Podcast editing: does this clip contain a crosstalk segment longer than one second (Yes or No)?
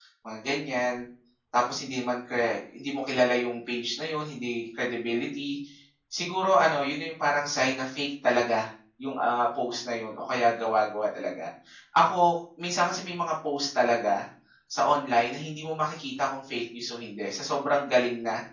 No